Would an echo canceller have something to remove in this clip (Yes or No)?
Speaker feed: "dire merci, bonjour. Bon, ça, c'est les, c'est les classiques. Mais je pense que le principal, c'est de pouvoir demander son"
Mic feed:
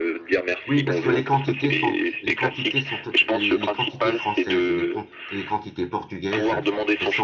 Yes